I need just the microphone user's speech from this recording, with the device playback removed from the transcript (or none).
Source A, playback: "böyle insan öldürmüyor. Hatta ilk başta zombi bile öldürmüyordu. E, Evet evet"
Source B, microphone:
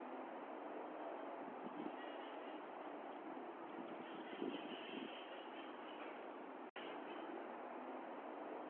none